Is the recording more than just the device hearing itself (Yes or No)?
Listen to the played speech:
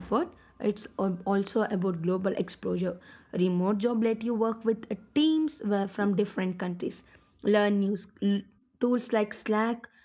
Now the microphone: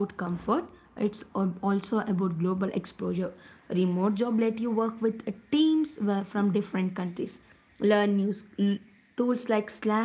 No